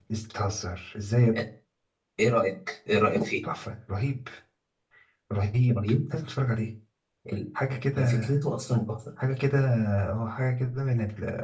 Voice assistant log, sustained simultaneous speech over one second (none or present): none